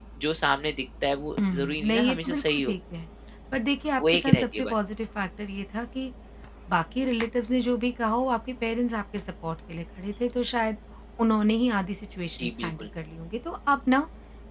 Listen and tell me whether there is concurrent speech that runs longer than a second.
Yes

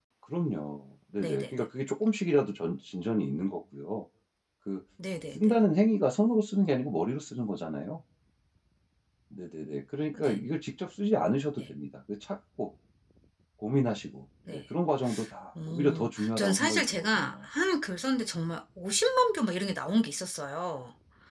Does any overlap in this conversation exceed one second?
Yes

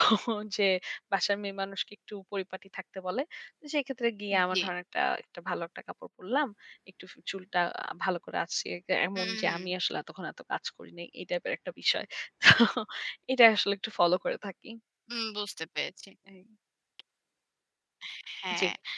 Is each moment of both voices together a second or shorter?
Yes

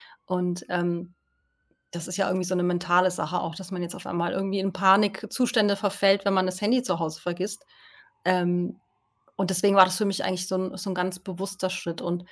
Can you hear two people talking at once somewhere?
No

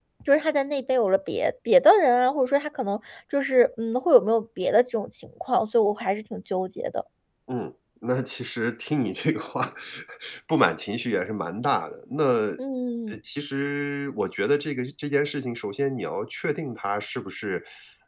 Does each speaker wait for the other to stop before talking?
Yes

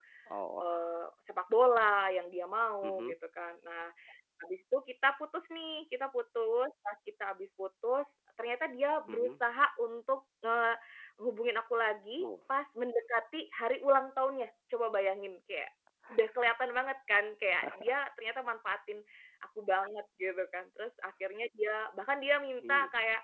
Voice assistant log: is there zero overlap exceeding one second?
Yes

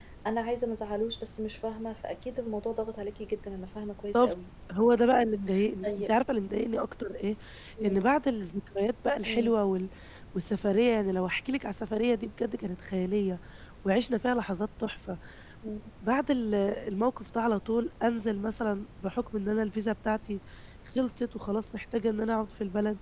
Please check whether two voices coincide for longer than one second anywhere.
No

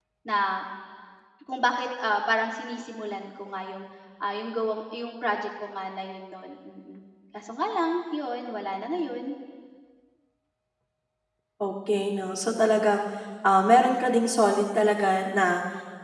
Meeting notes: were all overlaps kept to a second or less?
Yes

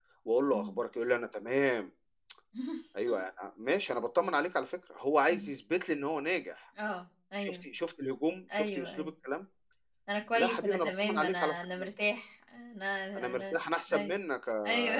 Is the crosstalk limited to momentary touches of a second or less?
No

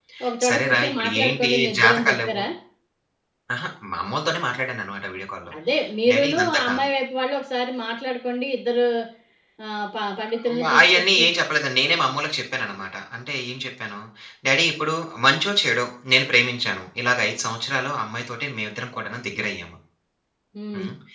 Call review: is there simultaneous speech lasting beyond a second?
Yes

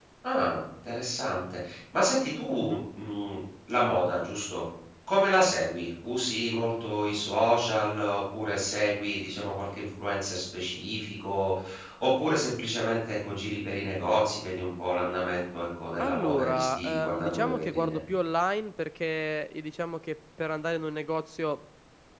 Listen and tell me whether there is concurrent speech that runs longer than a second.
Yes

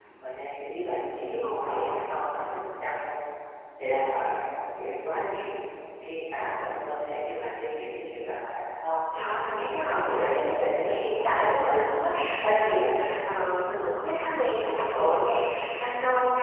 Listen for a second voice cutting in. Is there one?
Yes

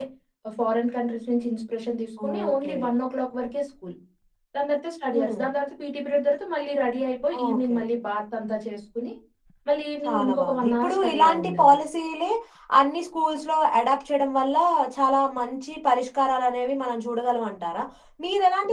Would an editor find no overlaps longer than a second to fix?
No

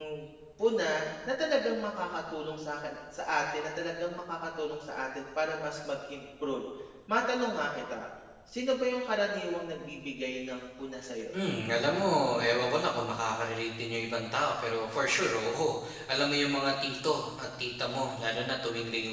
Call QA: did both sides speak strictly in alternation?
Yes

